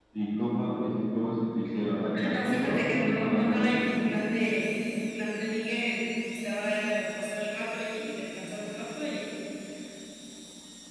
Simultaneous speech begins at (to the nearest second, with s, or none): 2 s